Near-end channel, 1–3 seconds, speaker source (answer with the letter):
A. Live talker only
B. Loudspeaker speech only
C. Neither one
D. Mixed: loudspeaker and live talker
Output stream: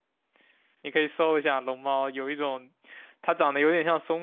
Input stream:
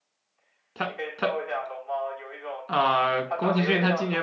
D